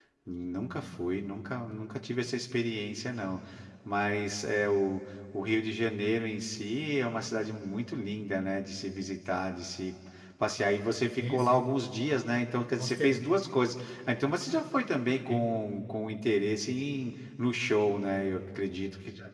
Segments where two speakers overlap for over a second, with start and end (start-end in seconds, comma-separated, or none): none